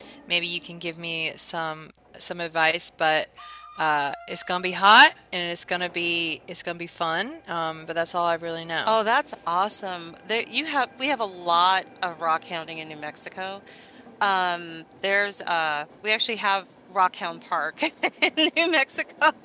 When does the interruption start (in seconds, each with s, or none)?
none